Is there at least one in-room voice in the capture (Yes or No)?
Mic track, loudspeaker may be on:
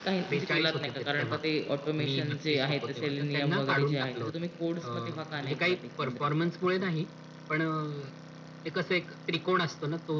Yes